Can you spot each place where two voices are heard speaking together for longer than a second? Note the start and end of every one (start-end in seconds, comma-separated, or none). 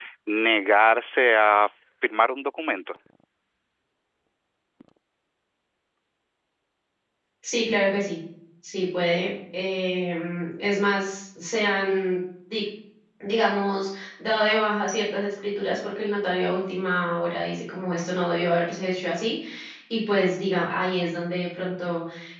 none